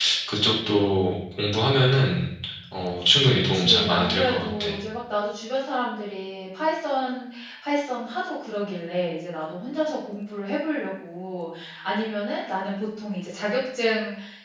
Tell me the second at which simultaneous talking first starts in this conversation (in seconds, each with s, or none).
3.3 s